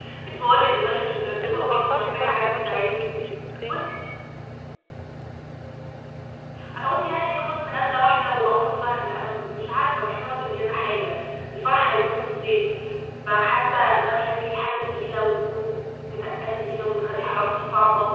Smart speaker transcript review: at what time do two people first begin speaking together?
1.4 s

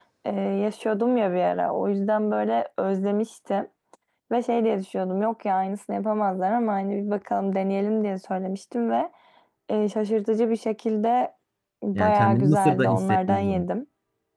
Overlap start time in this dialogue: 11.9 s

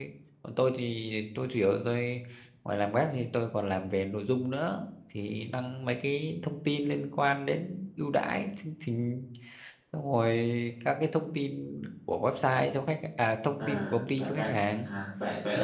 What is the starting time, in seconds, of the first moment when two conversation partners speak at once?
13.6 s

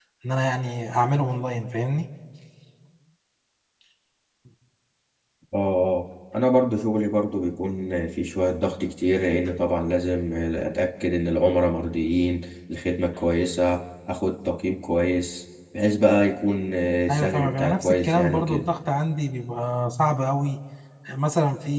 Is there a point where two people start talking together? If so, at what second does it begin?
17.1 s

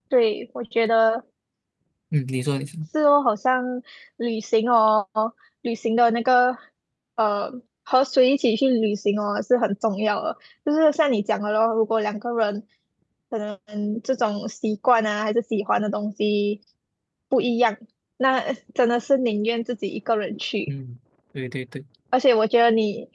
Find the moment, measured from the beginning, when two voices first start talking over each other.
none

